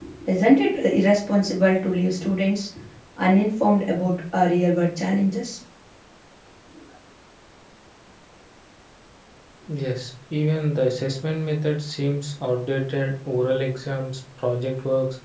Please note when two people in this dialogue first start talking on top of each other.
none

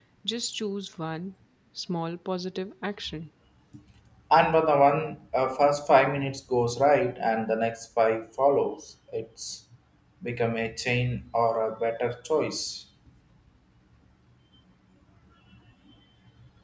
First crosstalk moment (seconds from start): none

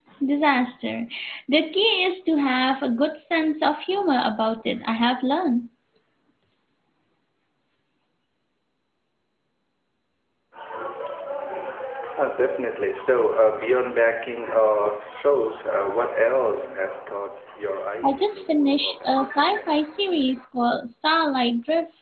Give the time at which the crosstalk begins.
18 s

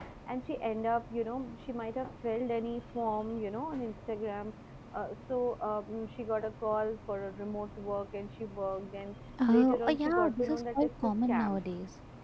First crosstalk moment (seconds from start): 9 s

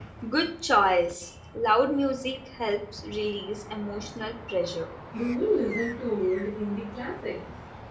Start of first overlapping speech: none

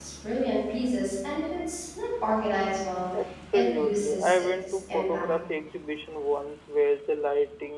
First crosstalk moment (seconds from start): 4 s

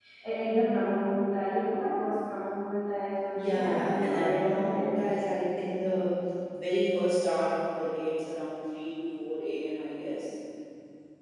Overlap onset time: 3 s

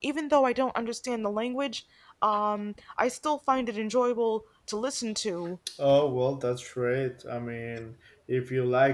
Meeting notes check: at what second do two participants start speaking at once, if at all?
none

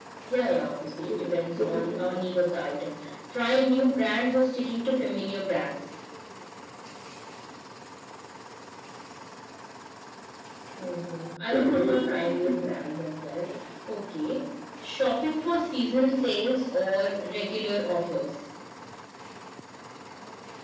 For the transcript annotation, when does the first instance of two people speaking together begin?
1 s

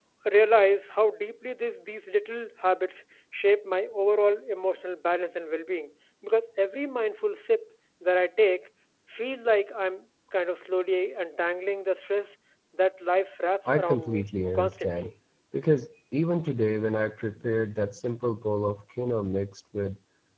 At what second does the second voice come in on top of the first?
14 s

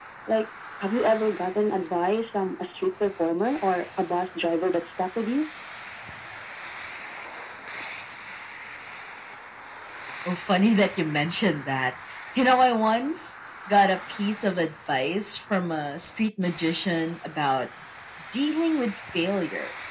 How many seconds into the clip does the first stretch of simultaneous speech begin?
none

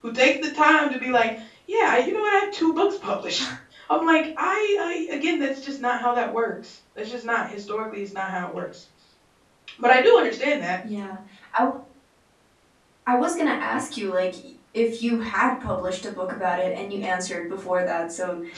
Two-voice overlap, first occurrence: none

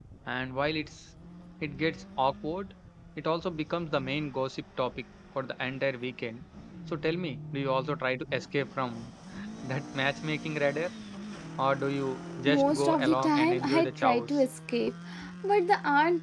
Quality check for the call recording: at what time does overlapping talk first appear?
12 s

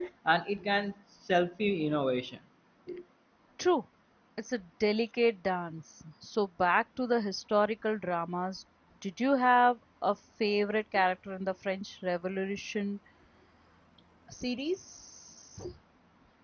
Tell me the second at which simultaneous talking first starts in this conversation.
none

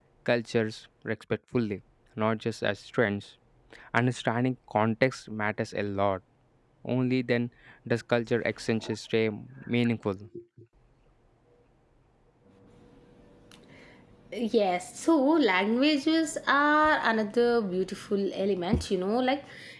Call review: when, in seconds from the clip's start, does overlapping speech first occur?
none

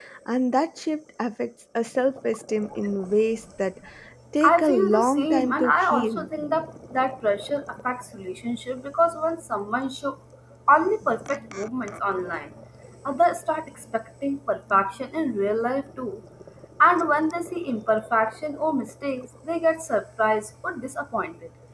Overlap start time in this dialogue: 4 s

